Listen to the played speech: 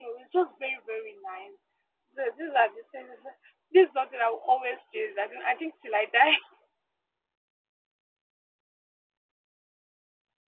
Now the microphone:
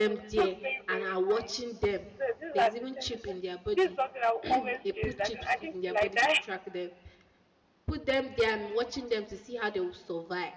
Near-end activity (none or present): present